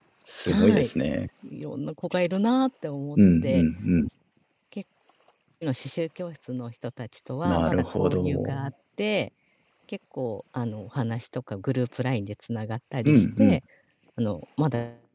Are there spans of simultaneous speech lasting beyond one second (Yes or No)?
Yes